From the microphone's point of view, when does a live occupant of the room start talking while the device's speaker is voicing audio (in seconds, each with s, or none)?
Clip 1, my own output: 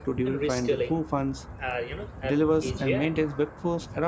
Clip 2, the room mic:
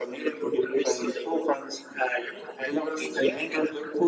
none